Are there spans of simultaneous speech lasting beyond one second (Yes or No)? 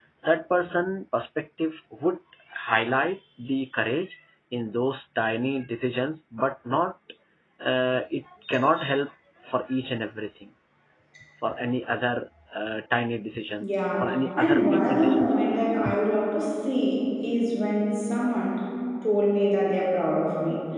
Yes